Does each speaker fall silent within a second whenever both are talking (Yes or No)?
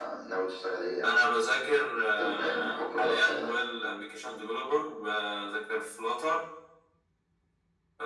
No